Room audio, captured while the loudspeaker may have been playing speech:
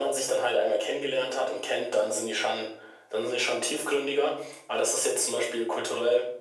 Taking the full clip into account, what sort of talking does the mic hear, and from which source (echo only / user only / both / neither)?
echo only